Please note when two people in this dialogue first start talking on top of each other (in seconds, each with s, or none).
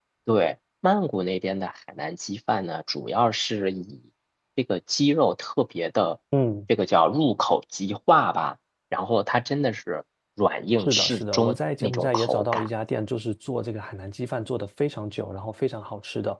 10.8 s